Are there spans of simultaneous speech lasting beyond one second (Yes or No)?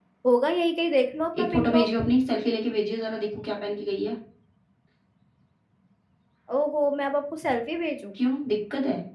No